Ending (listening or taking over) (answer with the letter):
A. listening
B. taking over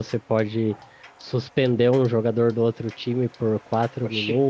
A